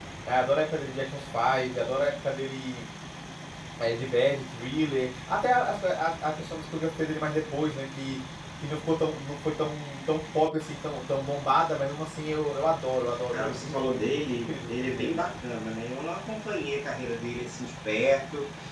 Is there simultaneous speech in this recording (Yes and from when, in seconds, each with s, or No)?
Yes, from 13.3 s